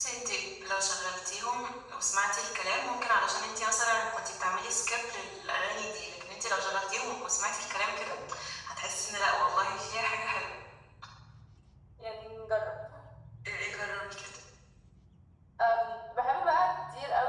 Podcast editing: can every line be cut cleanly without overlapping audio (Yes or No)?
Yes